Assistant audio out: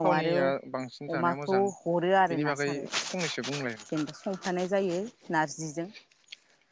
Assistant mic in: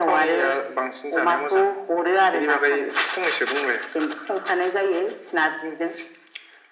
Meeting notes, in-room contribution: none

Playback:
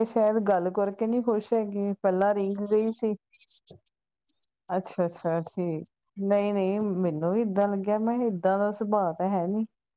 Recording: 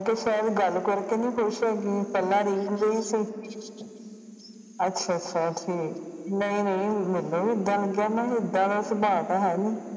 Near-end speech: none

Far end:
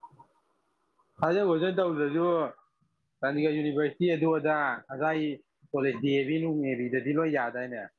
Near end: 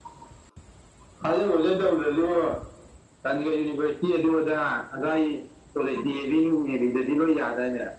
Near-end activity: none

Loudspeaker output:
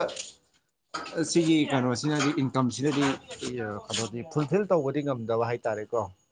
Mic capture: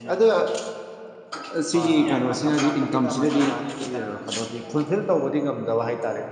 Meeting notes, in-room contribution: present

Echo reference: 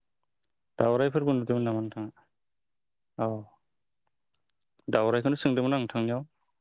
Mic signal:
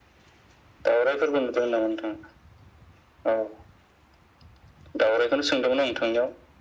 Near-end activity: none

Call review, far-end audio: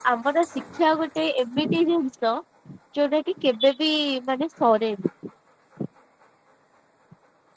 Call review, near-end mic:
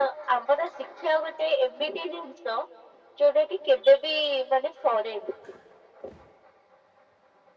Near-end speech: none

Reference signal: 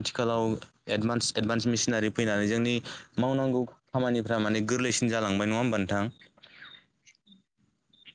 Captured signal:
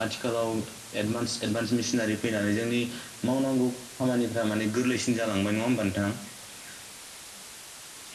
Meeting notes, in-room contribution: none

